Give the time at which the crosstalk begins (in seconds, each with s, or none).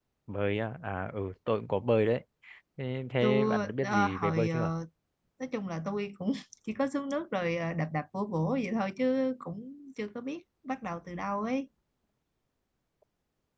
3.2 s